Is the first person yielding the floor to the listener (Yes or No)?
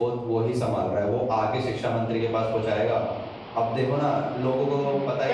Yes